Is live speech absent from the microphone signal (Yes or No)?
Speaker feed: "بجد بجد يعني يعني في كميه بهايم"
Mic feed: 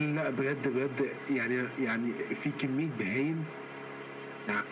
Yes